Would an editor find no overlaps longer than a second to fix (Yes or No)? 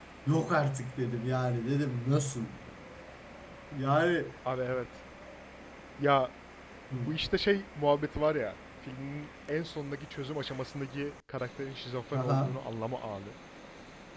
Yes